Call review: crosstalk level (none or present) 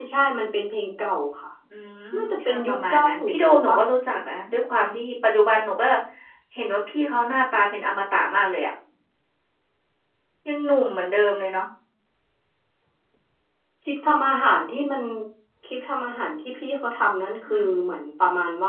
present